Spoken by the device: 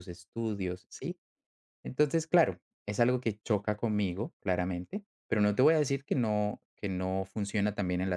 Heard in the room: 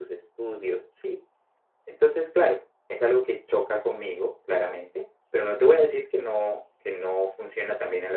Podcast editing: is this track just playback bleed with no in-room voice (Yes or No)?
Yes